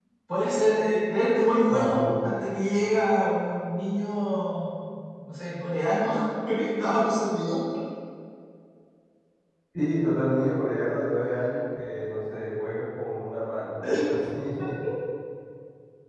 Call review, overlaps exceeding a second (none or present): none